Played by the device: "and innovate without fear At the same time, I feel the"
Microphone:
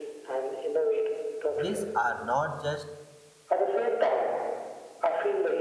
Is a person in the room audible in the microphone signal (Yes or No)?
Yes